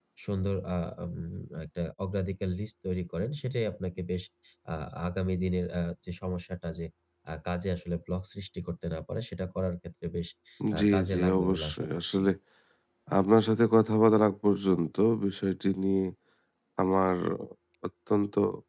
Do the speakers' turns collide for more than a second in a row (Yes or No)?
Yes